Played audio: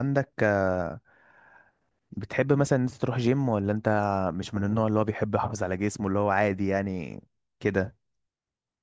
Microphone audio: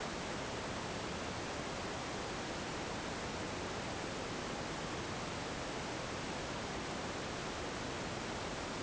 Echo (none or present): none